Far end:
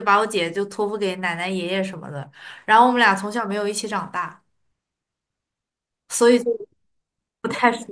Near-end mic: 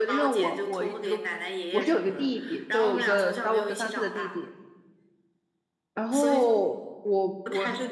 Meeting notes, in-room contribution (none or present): present